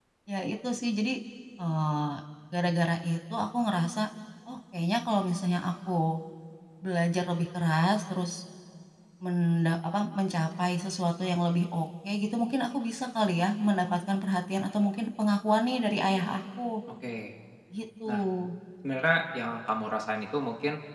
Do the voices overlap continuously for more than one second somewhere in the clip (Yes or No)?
No